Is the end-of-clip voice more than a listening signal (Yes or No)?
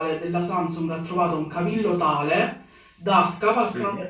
No